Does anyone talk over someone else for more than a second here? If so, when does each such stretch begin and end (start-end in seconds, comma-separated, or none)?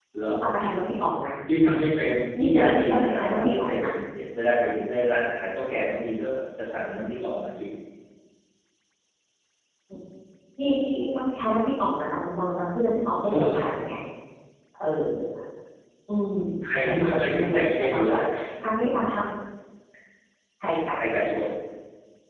2.4-3.8, 16.8-18.1